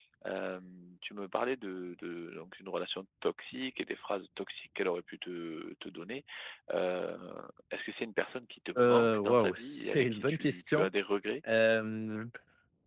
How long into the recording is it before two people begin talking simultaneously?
8.8 s

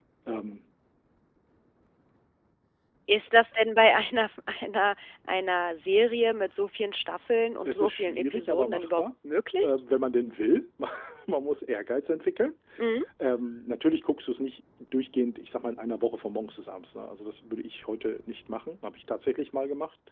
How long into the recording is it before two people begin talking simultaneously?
7.6 s

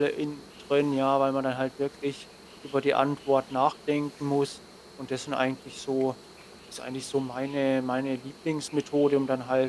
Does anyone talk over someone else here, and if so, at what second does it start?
none

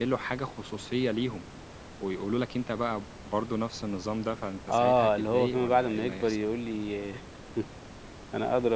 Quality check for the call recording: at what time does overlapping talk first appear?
4.7 s

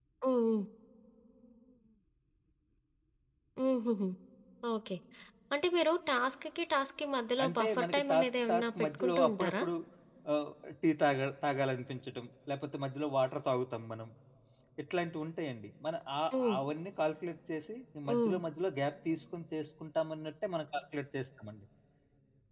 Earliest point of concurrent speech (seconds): 7.4 s

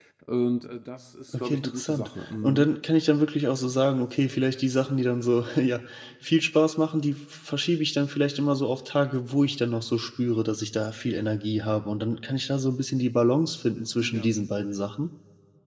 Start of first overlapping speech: 1.3 s

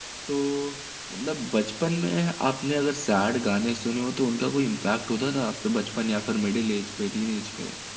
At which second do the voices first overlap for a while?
none

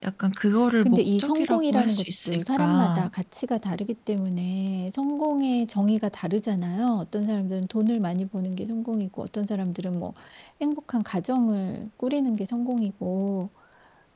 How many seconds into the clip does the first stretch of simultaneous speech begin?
0.8 s

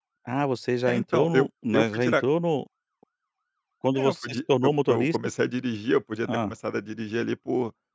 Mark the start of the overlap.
0.9 s

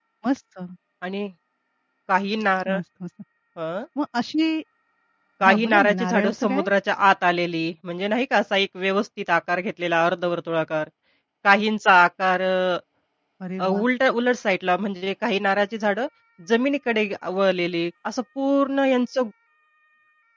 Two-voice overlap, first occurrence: 5.5 s

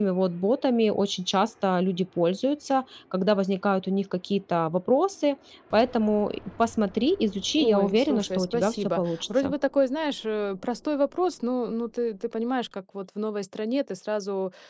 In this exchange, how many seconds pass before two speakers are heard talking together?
7.6 s

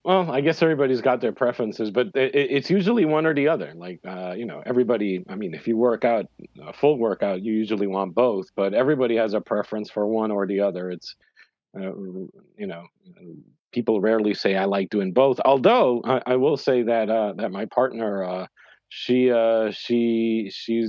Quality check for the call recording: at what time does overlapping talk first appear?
none

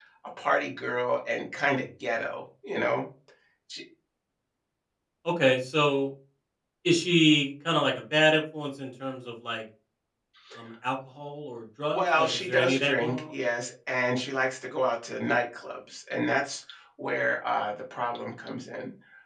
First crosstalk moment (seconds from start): 11.9 s

